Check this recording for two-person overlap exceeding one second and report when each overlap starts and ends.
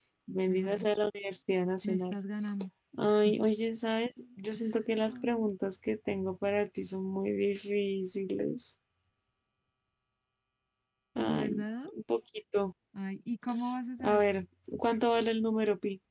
none

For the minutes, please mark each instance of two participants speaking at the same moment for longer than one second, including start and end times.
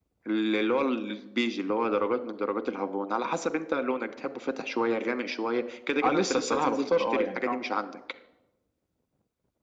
6.0-7.6

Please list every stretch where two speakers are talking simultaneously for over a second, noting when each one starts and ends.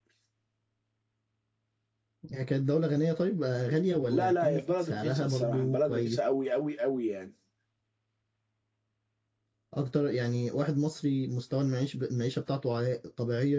4.1-6.2

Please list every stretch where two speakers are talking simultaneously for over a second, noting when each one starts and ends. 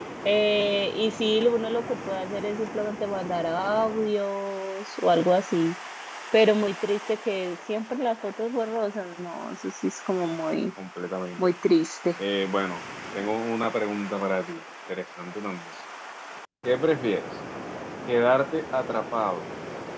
none

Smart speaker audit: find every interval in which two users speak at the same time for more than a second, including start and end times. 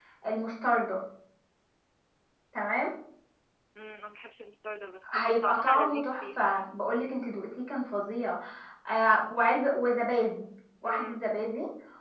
5.1-6.5

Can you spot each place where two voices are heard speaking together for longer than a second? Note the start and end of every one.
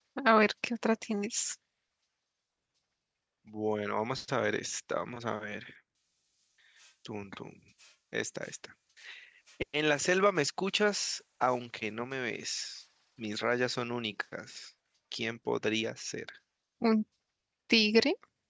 none

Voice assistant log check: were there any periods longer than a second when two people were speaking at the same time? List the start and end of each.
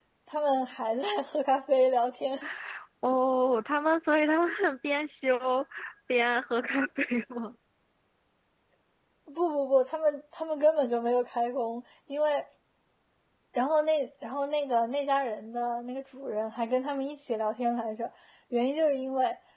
none

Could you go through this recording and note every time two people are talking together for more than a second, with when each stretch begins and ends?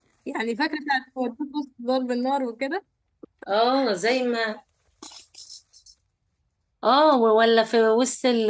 none

